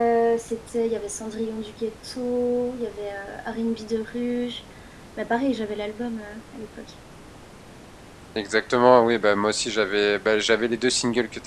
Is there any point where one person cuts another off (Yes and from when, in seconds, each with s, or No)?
No